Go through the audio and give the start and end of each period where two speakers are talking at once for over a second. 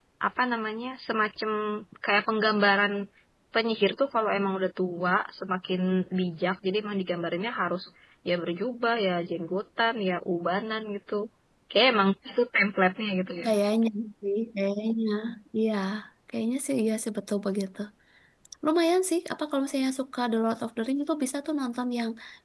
none

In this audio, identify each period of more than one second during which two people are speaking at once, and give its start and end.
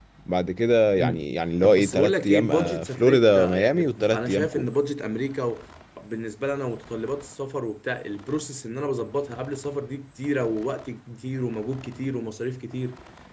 1.6-4.7

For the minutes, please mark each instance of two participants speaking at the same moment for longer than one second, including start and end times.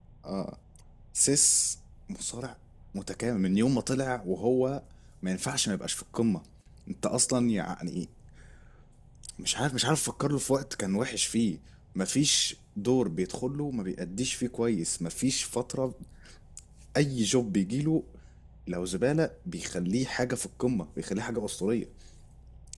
none

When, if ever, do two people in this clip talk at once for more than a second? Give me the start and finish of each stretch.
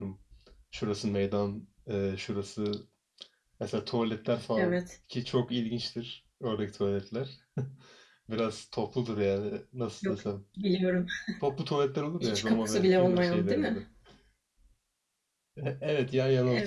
12.2-13.8

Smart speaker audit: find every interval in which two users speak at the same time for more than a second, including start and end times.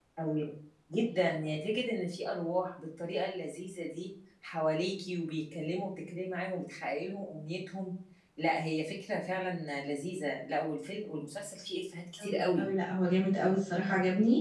none

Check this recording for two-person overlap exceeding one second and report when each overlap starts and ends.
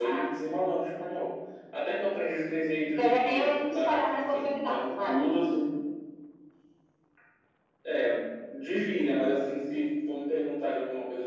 2.9-5.2

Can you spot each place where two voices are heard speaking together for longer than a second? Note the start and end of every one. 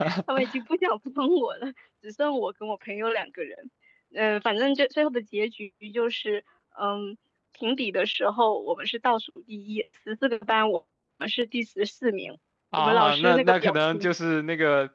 12.8-14.1

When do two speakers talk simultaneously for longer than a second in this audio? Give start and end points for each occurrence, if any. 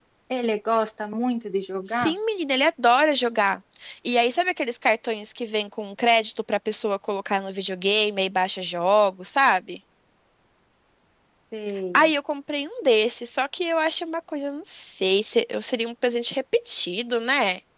none

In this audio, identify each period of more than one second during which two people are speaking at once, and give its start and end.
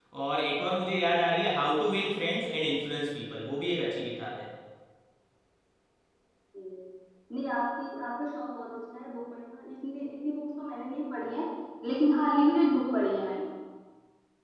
none

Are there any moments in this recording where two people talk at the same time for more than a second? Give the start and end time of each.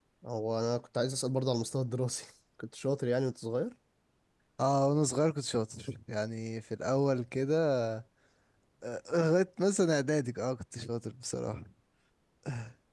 none

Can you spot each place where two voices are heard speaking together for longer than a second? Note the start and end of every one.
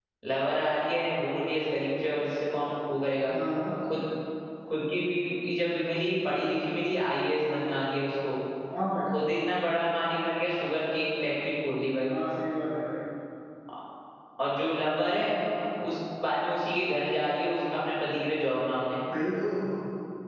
none

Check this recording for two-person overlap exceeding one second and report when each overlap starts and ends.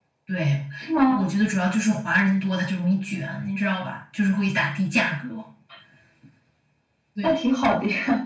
none

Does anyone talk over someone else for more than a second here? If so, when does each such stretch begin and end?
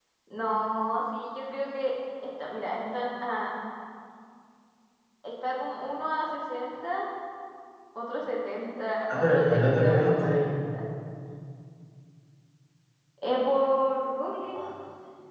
9.1-10.4

